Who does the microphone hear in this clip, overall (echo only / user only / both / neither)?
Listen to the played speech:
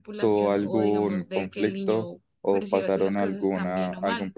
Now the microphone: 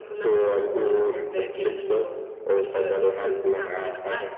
echo only